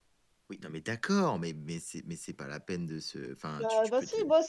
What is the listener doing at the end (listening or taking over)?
taking over